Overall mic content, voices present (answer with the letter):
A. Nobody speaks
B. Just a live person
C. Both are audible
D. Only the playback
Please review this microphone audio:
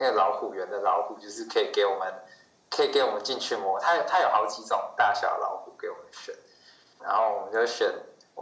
D